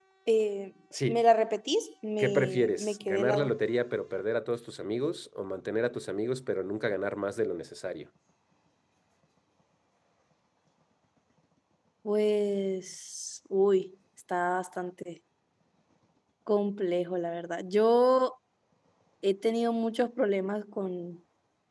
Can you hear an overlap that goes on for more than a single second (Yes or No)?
Yes